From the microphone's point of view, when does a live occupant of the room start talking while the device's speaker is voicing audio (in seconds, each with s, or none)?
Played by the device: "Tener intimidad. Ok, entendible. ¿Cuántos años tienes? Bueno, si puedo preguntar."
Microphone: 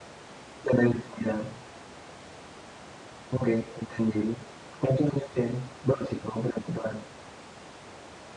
none